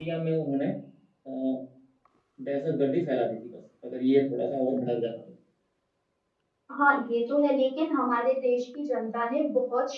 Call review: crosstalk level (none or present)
none